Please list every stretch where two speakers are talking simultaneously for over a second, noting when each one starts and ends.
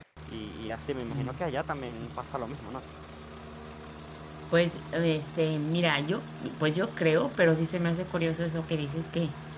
none

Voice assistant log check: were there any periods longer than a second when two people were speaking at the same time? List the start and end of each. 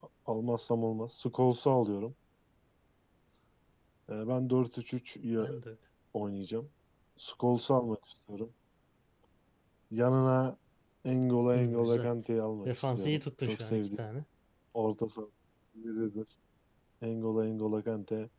12.7-14.0

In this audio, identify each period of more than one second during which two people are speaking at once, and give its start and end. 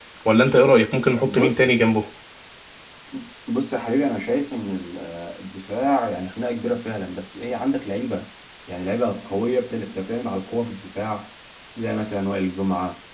none

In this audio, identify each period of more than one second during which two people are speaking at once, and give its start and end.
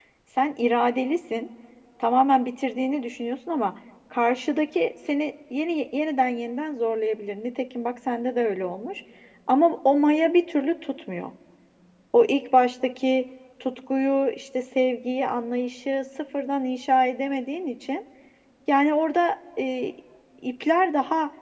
none

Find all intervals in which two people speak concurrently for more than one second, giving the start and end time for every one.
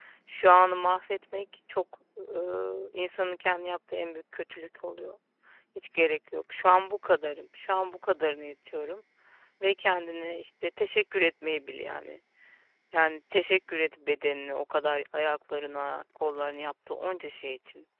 none

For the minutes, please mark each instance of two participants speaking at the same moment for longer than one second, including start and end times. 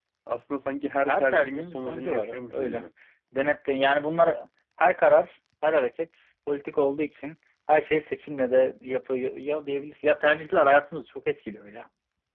1.1-2.8

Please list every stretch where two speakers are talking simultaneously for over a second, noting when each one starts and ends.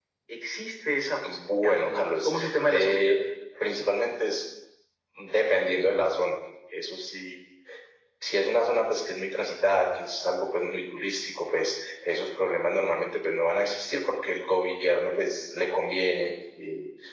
1.2-3.1

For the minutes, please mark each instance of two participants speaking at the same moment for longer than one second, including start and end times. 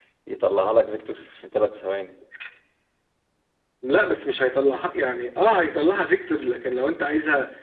none

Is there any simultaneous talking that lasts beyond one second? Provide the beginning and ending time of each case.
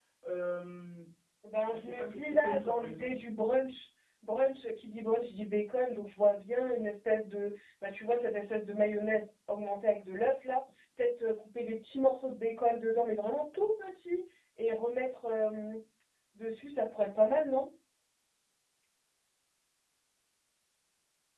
1.7-3.1

